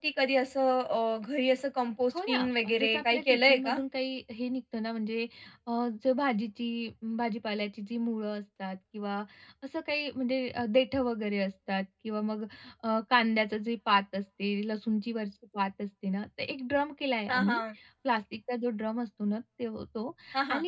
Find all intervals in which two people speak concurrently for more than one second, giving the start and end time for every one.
2.1-3.8

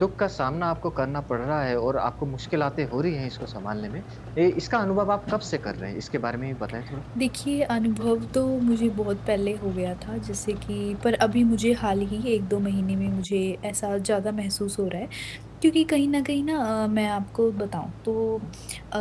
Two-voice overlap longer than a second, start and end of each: none

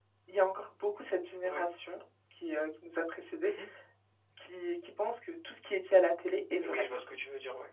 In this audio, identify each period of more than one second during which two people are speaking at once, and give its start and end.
none

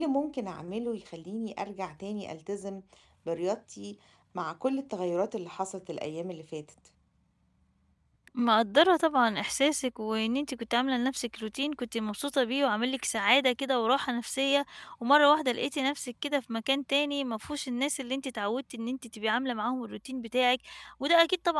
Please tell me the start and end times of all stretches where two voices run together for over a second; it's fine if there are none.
none

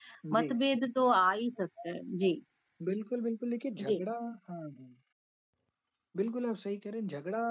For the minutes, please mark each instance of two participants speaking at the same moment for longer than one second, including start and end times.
none

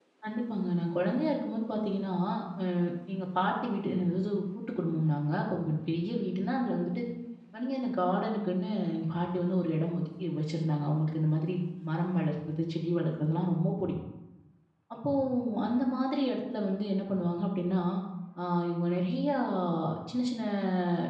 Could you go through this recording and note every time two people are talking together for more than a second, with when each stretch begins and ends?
none

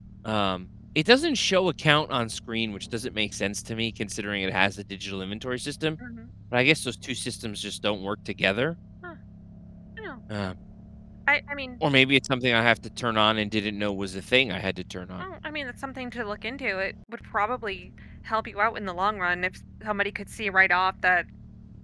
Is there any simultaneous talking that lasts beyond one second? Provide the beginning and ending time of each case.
none

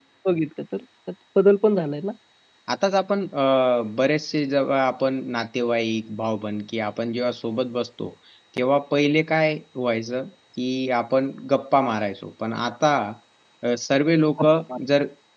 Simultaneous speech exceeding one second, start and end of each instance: none

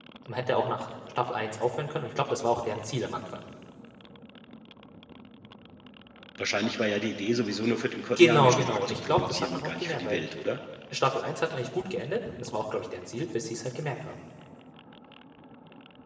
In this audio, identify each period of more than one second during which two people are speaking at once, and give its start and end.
8.2-10.2

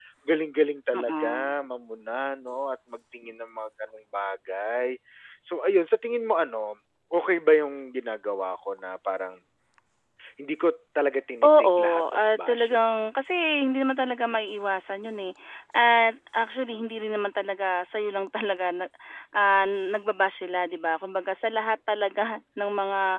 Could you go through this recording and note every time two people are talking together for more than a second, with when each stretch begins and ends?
11.4-12.8

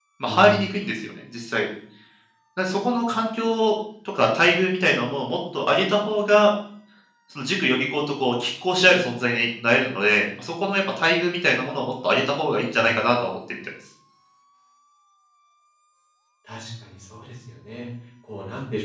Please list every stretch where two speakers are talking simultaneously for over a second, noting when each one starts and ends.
none

